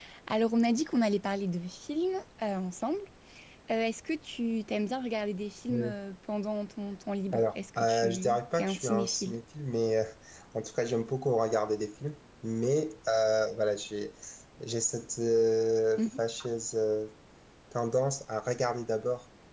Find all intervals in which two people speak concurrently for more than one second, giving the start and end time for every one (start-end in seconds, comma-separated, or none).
7.3-9.4